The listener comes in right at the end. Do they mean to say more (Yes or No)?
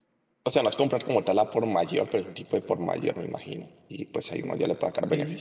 Yes